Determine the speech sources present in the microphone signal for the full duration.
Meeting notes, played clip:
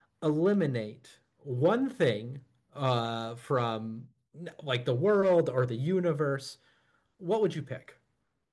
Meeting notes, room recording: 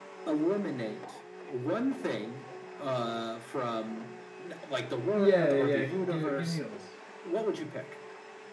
both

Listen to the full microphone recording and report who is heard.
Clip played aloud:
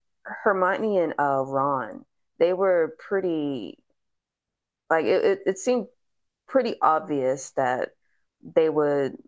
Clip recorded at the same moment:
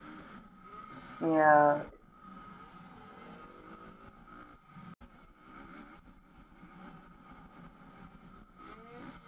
user only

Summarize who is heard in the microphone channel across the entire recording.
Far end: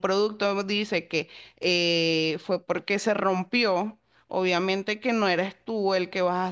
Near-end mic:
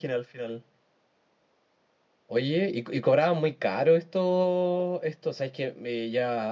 user only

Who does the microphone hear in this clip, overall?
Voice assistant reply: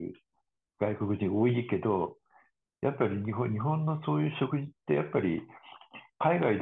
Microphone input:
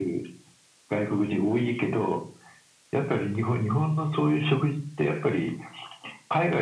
echo only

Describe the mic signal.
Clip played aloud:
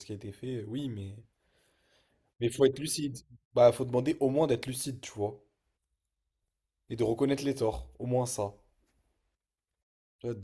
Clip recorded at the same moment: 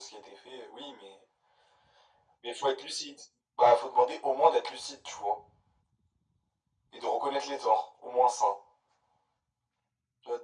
echo only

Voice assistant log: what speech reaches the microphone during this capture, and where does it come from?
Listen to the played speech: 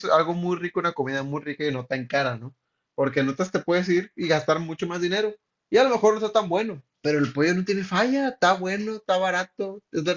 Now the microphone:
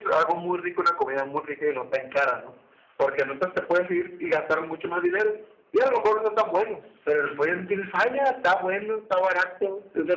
echo only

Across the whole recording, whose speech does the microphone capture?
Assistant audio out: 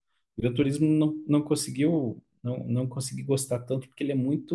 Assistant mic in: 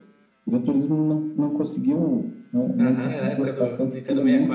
both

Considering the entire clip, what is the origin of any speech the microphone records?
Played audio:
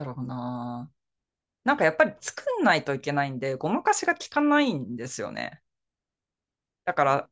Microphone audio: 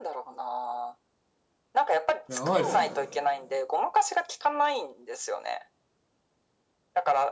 both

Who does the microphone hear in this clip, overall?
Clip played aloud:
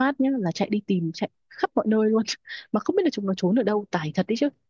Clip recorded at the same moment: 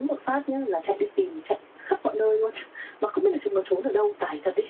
echo only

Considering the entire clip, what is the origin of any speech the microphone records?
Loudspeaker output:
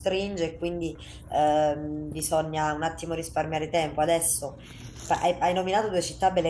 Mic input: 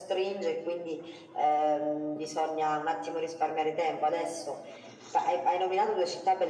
echo only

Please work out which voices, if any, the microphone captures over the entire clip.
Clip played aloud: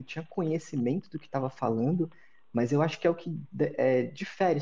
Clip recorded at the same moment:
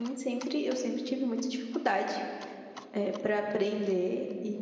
user only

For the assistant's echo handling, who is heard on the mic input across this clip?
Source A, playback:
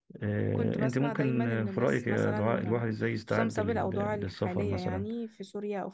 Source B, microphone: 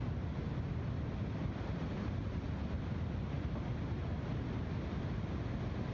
neither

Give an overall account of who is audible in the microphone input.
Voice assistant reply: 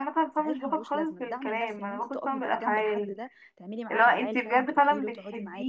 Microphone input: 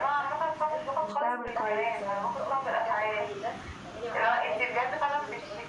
both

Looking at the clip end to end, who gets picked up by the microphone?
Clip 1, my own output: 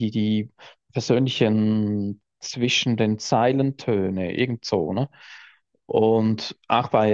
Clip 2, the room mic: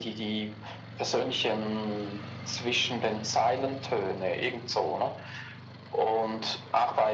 echo only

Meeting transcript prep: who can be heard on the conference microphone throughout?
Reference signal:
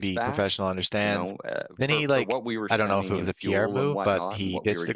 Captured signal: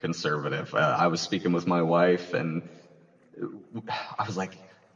user only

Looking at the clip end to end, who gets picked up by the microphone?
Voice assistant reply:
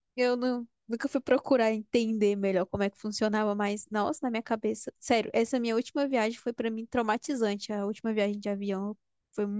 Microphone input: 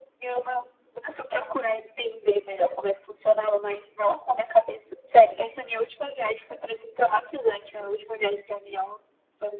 echo only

